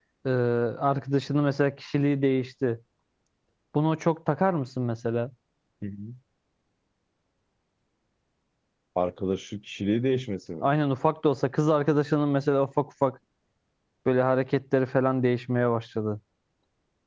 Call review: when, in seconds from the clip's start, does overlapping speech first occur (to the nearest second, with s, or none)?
none